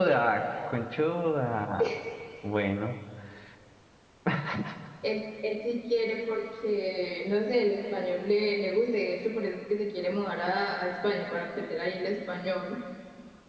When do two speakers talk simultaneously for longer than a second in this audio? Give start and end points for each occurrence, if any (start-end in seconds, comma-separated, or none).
none